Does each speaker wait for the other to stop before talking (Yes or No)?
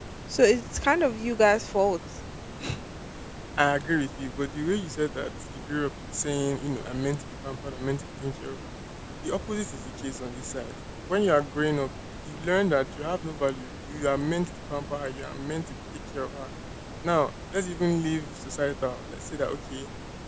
Yes